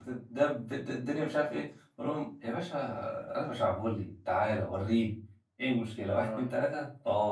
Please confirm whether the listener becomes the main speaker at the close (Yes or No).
No